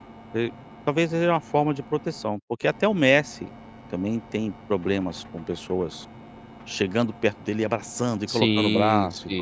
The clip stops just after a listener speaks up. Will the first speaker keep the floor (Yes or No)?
No